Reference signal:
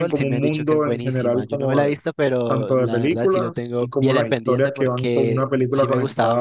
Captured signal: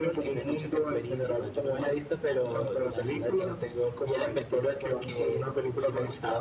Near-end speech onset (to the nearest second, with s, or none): none